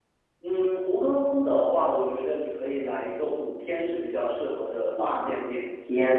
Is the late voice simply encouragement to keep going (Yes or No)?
No